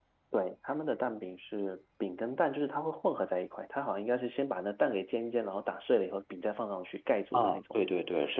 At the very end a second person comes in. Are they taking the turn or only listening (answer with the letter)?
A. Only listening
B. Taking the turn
B